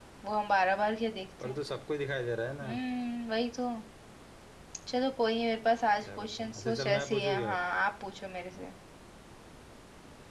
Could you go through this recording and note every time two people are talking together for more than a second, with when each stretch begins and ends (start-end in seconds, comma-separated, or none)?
6.0-7.6